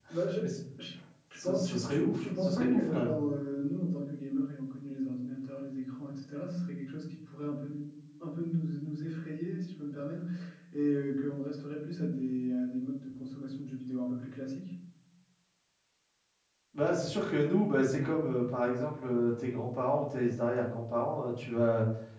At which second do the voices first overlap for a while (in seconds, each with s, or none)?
1.4 s